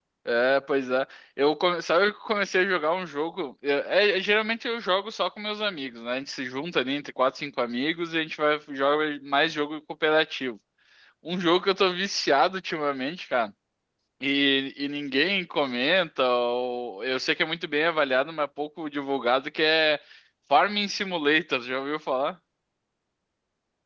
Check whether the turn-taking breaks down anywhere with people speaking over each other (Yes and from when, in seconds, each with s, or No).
No